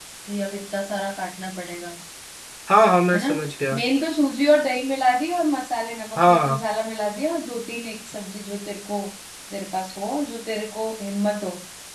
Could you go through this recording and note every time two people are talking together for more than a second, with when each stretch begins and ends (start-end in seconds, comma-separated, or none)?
none